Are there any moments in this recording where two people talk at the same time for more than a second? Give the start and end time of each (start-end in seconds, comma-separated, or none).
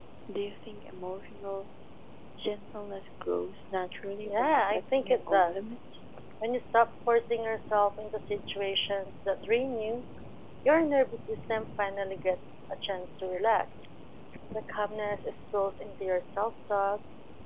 4.2-5.7